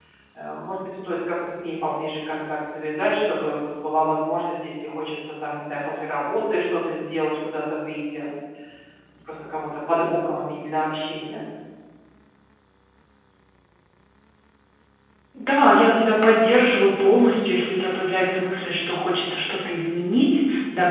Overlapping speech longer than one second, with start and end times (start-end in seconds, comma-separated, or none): none